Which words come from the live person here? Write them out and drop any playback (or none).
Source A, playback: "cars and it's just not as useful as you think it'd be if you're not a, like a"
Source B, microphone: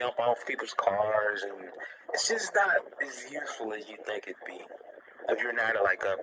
none